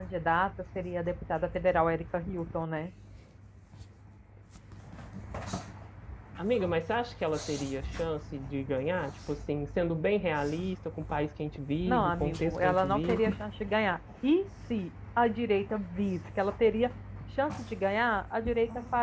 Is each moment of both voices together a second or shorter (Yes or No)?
No